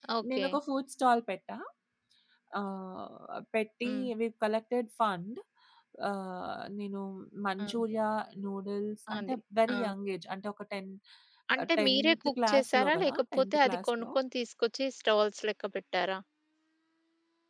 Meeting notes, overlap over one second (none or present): present